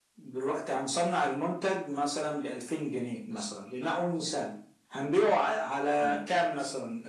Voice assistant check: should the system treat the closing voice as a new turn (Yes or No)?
No